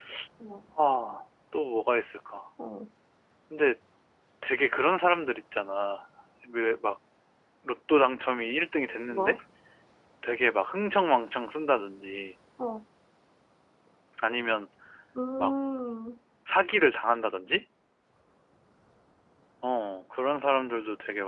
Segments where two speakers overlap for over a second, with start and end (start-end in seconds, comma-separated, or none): none